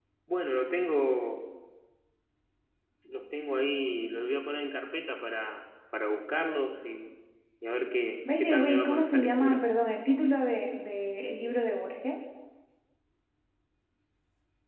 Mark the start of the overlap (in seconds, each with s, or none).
8.4 s